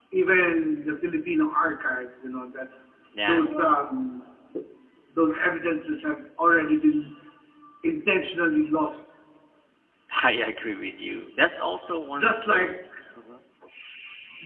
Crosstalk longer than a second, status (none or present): none